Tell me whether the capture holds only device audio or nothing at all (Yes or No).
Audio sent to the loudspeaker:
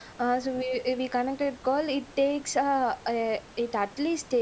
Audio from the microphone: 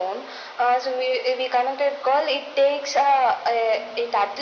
Yes